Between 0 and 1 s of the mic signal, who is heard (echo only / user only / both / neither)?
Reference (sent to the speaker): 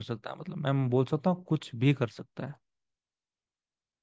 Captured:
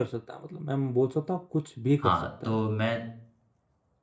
echo only